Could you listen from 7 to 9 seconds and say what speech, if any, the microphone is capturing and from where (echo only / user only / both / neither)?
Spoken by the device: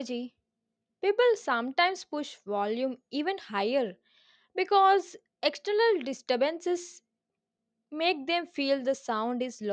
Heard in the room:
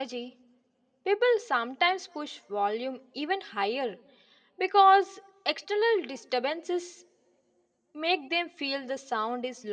echo only